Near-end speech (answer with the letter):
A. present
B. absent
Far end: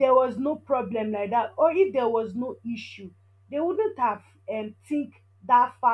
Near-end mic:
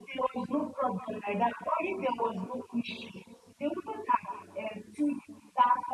B